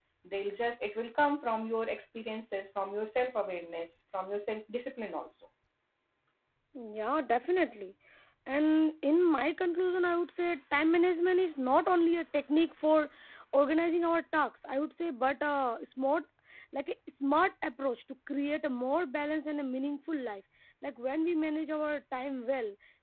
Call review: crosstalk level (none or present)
none